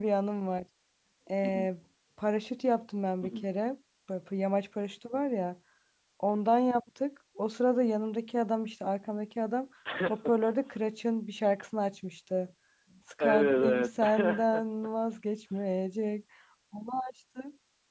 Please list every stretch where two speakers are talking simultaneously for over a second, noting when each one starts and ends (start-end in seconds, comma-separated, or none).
13.2-14.6